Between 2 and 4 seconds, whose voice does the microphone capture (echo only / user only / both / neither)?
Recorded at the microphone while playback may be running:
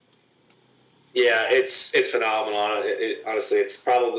echo only